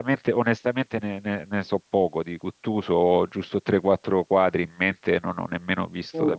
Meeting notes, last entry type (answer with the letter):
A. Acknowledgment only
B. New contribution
A